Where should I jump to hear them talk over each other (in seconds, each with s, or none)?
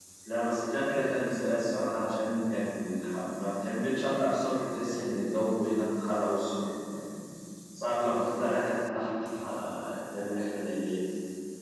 none